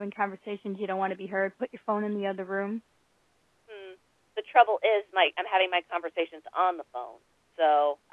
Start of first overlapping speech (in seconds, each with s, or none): none